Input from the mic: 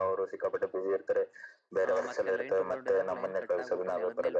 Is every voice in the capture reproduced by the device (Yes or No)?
No